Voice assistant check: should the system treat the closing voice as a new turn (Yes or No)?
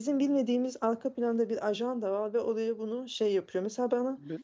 No